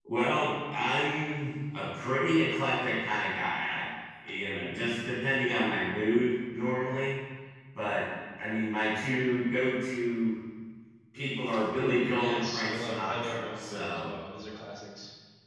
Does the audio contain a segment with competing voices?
Yes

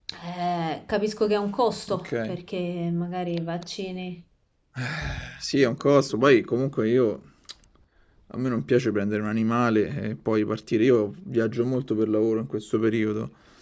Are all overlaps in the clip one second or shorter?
Yes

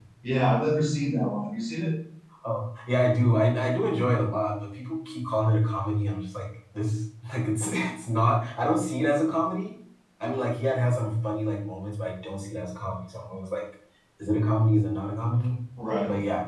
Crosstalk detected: No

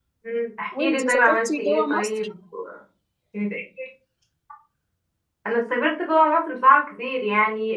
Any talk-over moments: Yes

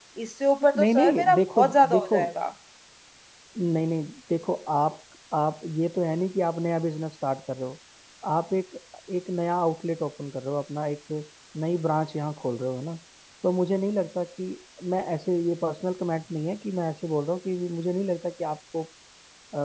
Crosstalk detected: Yes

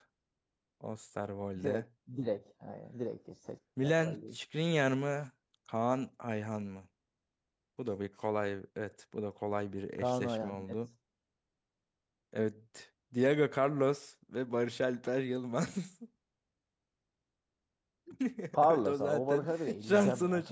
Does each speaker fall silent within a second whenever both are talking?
No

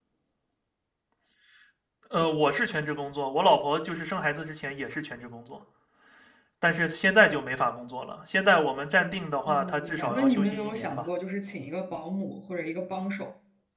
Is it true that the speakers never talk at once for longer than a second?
No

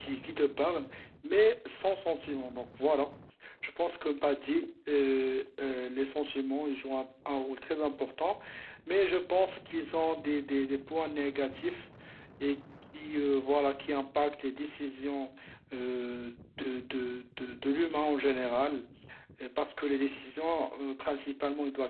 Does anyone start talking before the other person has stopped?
No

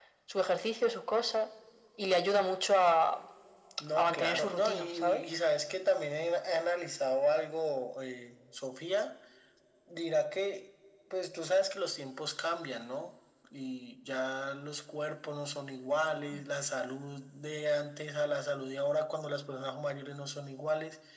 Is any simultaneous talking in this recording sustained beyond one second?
Yes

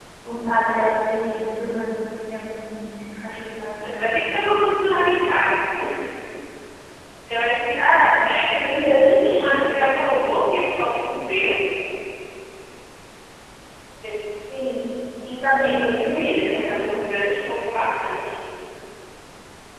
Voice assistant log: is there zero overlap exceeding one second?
No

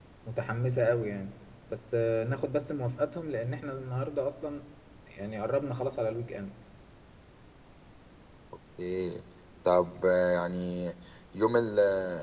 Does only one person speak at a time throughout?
Yes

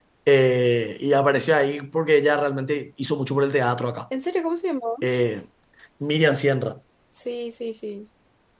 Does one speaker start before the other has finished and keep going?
No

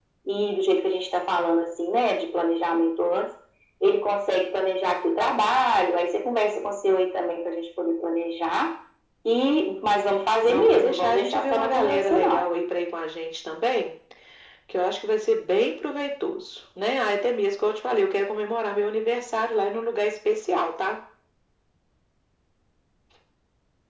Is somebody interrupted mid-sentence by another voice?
Yes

